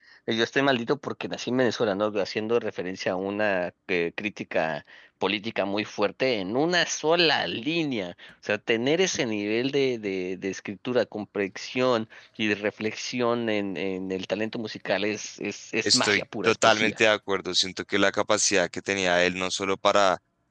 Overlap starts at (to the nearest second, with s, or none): 16 s